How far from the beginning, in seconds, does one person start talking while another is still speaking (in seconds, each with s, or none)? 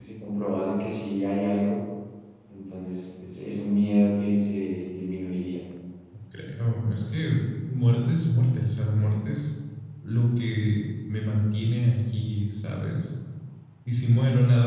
none